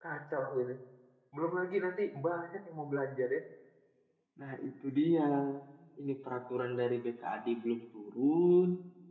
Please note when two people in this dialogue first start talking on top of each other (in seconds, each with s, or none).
none